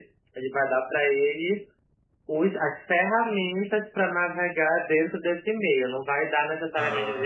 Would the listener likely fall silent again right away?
Yes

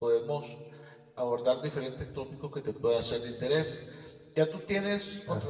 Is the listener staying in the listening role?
Yes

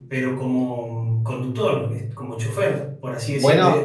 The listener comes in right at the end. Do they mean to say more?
Yes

